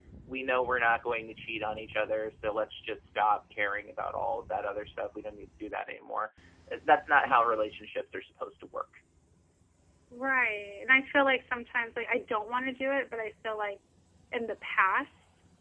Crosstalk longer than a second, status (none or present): none